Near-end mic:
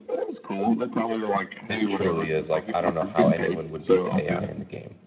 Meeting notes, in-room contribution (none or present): present